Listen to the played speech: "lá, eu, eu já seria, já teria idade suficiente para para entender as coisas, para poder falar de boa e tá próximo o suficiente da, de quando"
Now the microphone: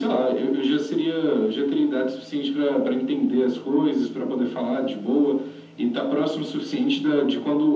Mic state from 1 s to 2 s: echo only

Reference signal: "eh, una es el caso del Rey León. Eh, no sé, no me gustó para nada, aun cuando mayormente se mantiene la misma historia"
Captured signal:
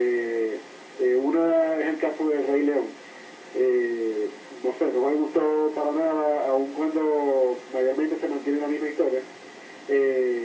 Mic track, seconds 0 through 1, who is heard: echo only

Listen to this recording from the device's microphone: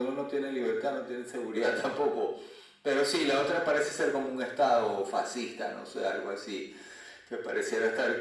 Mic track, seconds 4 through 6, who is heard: echo only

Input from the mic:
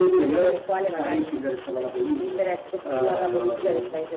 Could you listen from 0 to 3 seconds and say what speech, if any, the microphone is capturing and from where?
echo only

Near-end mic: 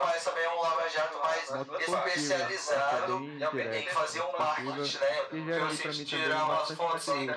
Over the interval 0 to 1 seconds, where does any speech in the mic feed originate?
echo only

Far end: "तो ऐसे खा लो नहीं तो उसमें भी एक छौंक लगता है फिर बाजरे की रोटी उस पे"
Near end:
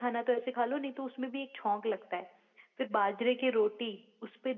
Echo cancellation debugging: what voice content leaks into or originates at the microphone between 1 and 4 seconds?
echo only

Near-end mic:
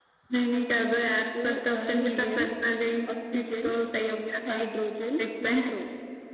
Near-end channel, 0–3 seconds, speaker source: echo only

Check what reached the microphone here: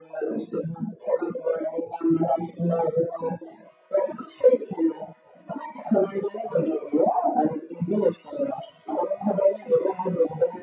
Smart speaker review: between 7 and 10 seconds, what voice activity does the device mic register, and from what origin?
echo only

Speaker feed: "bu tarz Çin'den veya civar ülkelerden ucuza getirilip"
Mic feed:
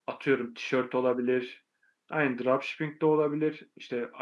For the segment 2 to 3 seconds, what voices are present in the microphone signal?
user only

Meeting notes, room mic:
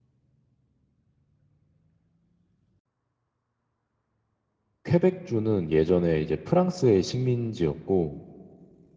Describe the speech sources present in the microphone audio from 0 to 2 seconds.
neither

